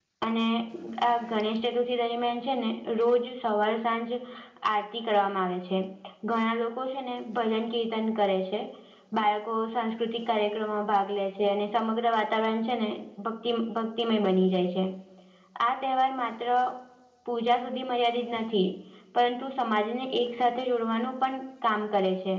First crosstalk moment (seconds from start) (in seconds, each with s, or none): none